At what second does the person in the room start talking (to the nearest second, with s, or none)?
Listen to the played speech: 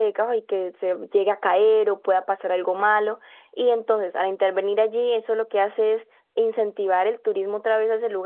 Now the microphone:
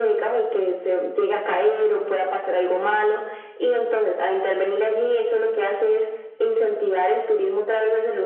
none